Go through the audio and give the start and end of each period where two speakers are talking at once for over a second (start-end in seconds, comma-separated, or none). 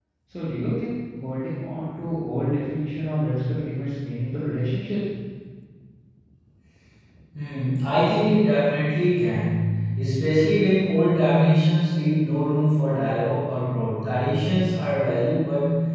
none